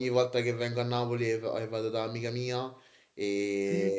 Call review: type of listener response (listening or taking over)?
listening